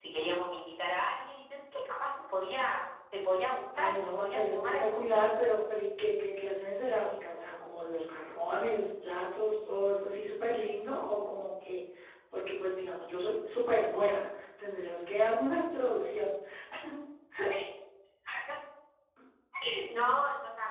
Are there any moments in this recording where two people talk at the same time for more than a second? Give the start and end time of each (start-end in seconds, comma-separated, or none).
3.8-5.3